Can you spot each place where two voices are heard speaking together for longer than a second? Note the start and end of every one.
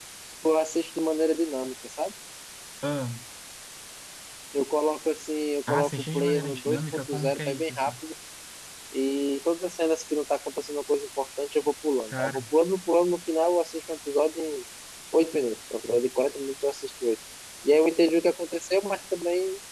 5.7-7.9

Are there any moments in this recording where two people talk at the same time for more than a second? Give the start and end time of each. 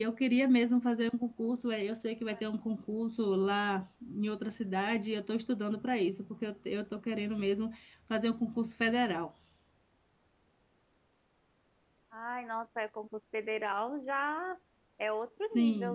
none

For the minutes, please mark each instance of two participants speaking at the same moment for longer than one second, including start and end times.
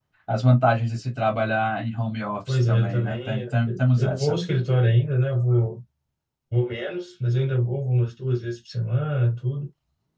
2.5-4.3

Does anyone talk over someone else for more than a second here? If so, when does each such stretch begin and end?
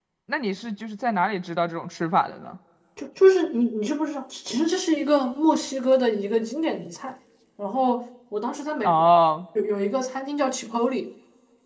none

